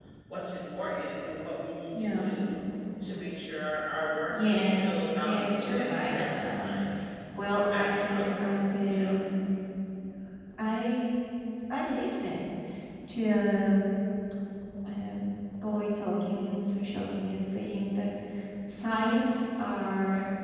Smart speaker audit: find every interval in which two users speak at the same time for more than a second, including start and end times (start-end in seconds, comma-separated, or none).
4.3-6.7, 7.7-9.2